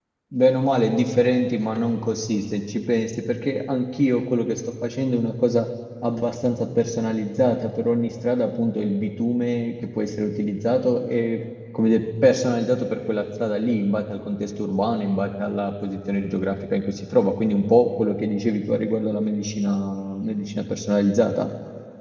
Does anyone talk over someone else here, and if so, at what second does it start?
none

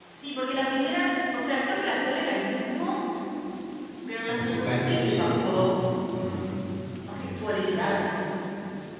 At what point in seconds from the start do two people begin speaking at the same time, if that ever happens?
4.3 s

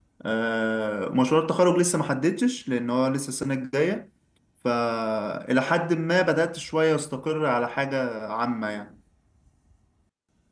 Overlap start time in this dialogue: none

